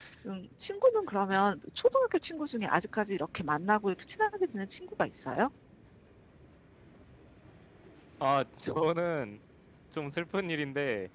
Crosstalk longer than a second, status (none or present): none